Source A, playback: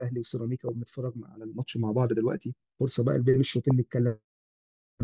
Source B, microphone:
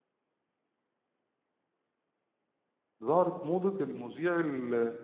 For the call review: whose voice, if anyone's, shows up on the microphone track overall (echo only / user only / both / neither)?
user only